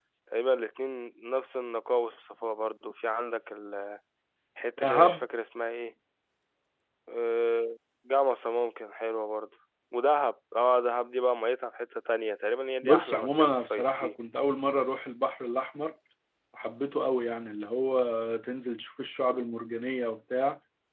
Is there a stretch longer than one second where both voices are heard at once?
Yes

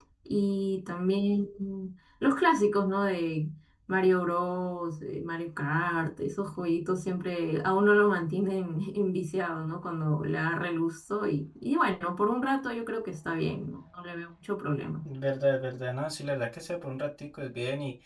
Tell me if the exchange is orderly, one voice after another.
Yes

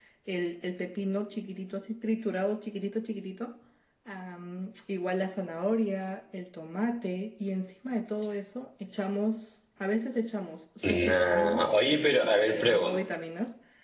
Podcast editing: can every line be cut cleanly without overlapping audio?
No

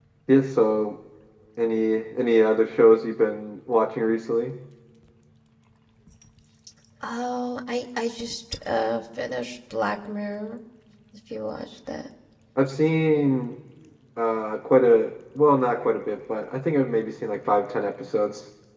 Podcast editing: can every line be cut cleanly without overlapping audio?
Yes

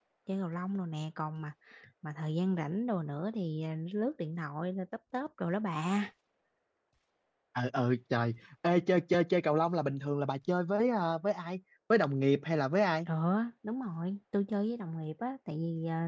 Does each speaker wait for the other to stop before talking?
Yes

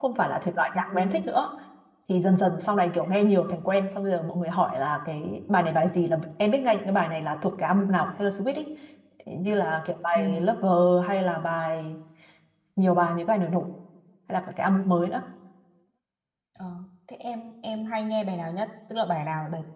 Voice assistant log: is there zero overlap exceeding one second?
Yes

